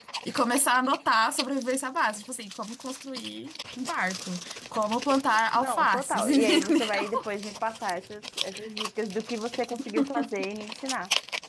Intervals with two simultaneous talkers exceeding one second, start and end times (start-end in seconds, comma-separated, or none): 5.5-7.3